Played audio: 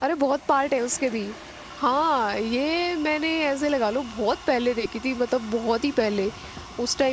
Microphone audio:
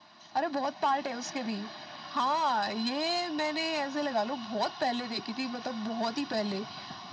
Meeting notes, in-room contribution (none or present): none